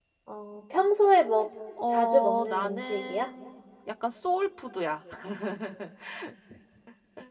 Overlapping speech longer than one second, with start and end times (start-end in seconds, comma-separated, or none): 1.9-3.3